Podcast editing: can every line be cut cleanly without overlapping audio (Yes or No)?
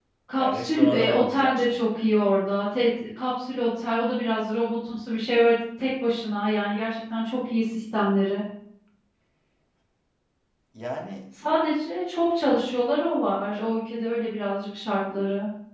No